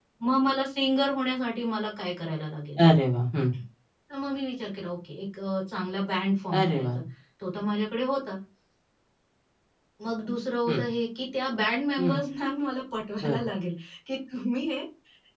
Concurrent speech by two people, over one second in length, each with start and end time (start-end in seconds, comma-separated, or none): none